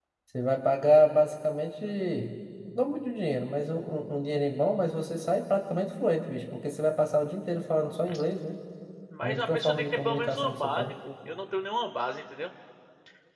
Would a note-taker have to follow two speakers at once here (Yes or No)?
Yes